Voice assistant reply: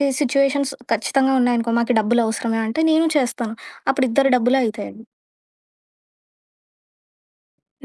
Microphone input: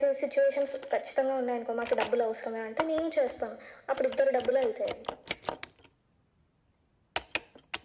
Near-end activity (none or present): none